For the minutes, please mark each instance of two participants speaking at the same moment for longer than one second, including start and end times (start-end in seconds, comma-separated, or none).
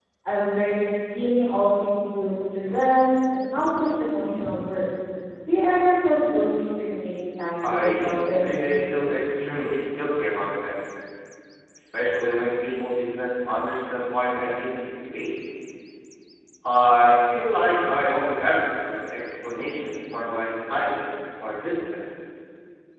7.7-9.0